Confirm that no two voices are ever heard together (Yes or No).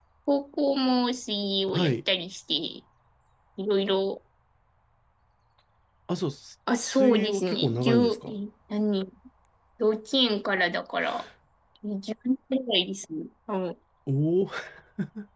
No